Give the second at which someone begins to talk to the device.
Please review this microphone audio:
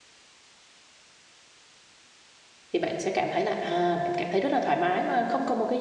2.7 s

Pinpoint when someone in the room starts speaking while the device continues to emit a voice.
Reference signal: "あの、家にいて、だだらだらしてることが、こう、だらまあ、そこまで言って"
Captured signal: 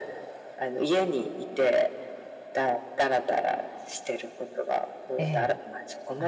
5.2 s

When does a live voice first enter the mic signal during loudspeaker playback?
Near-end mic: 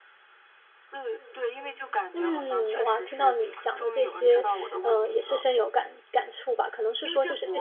2.1 s

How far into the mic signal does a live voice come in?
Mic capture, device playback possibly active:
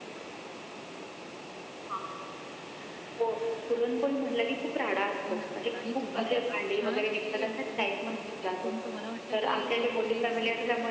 5.2 s

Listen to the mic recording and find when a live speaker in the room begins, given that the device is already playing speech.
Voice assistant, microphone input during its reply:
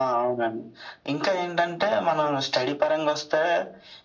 none

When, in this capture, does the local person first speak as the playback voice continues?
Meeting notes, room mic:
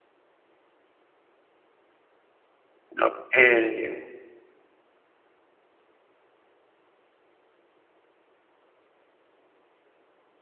3.0 s

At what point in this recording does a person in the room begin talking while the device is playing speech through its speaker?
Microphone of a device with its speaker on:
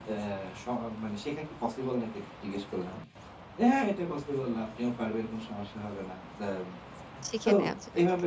7.3 s

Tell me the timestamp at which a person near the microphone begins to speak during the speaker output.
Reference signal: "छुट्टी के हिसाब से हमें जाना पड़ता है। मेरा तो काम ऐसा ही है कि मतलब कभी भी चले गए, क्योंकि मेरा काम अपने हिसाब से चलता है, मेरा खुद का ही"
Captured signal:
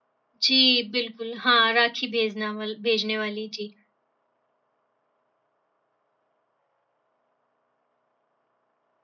0.4 s

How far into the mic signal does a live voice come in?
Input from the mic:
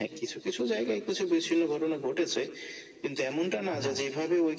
3.7 s

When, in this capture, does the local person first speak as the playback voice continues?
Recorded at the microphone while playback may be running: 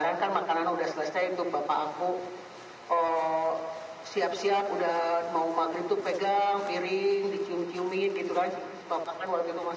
none

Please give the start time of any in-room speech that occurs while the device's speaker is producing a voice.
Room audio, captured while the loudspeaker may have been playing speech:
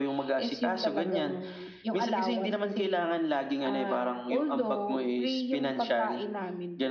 none

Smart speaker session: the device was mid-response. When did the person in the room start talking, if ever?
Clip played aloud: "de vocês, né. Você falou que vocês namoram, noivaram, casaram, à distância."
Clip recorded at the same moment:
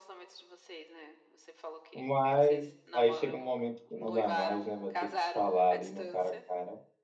1.9 s

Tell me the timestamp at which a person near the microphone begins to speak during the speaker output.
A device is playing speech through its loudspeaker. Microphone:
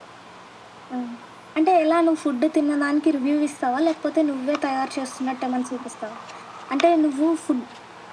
none

